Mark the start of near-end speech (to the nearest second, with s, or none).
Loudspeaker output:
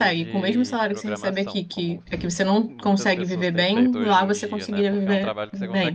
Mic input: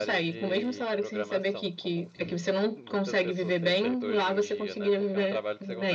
none